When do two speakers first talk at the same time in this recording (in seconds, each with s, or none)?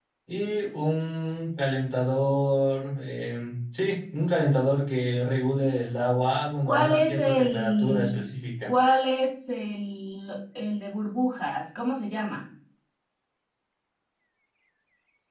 6.7 s